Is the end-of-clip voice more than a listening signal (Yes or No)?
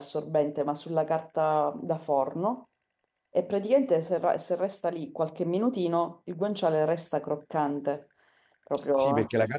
Yes